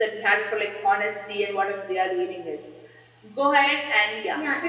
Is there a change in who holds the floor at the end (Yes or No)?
Yes